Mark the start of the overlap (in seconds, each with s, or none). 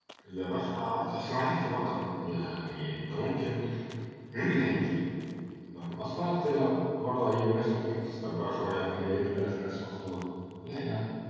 none